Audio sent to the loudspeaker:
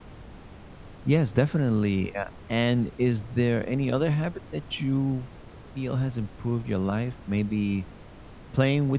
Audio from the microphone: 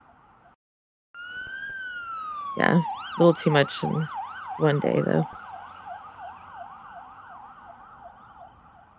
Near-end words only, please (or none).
yeah, a little too much in one day, though.